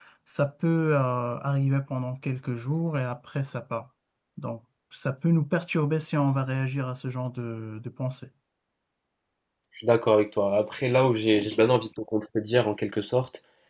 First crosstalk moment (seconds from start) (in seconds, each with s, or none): none